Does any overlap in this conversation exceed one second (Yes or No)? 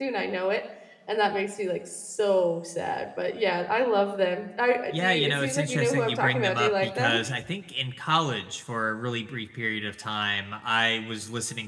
Yes